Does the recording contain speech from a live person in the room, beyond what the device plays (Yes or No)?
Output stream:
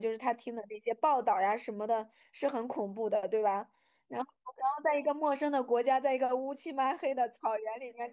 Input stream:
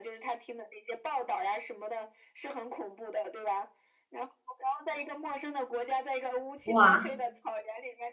Yes